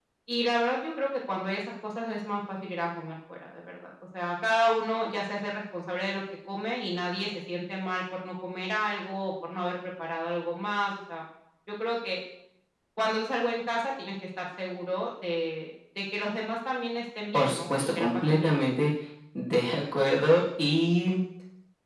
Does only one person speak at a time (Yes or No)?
No